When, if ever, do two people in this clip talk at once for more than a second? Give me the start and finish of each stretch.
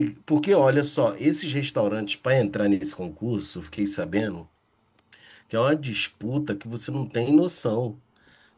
none

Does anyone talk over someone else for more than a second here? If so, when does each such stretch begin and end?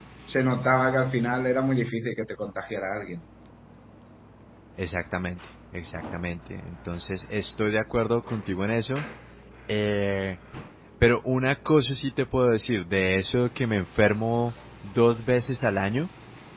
none

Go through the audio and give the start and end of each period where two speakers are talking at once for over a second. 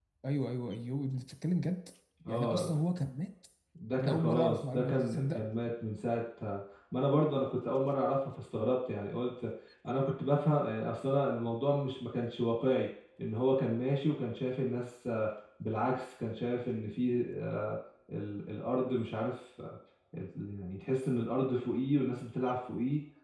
4.0-5.4

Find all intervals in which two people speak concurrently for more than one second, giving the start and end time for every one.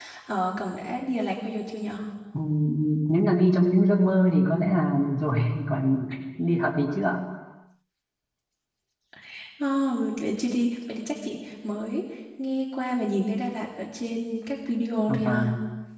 none

